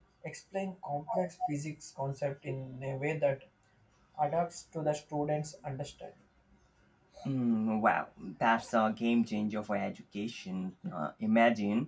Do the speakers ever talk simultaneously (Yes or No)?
No